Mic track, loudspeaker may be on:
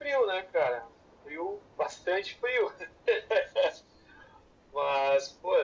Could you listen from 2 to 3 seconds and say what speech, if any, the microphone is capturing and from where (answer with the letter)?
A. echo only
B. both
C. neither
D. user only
A